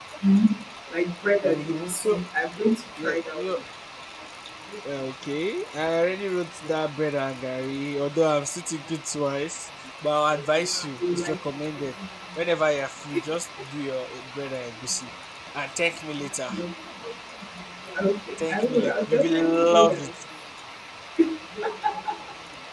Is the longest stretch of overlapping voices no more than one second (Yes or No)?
No